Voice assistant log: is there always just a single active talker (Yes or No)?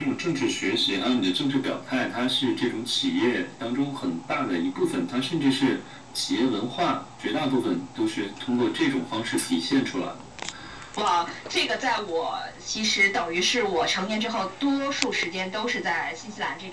Yes